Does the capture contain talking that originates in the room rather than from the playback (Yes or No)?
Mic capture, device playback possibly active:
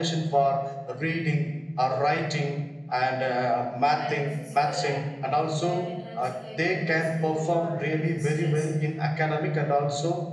Yes